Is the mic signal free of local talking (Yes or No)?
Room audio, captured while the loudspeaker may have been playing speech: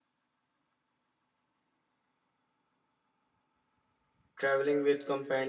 No